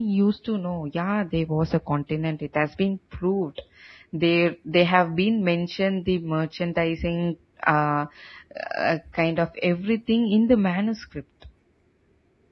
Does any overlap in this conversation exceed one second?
No

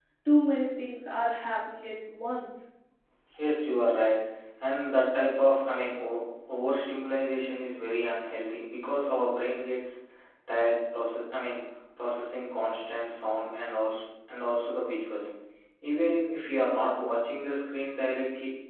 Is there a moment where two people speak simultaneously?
No

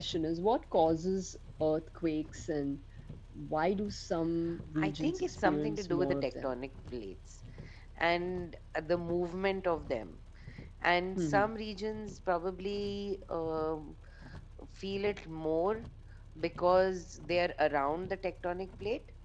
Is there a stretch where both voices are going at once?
Yes, from 4.8 s

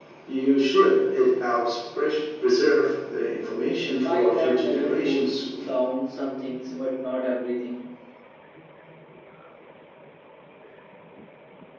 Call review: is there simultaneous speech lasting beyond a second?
Yes, from 4.0 s

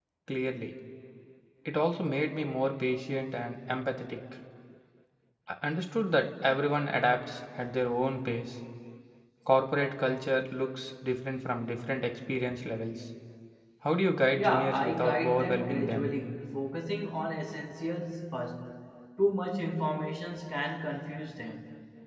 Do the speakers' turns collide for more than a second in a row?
Yes, from 14.4 s

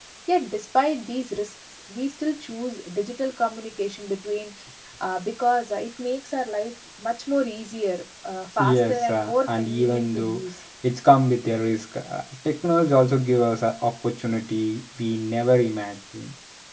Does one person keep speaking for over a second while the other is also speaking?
Yes, from 8.6 s

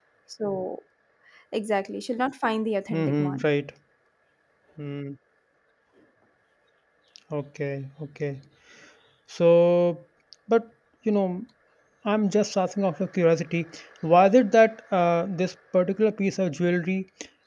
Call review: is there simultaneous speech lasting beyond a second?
No

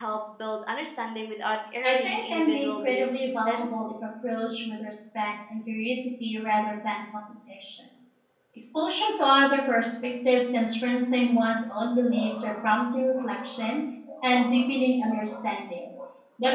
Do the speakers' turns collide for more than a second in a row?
Yes, from 1.8 s

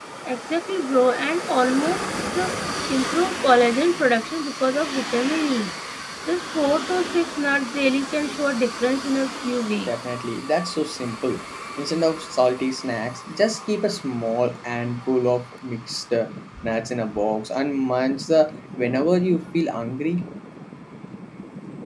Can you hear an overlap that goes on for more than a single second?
No

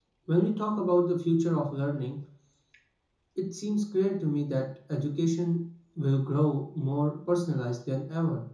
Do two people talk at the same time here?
No

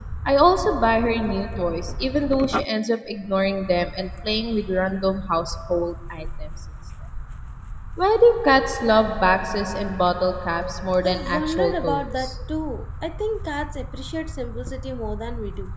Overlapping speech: Yes, from 11.0 s

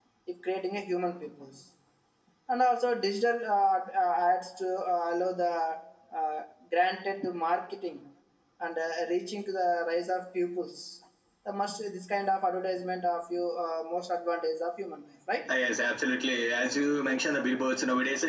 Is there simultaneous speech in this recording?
No

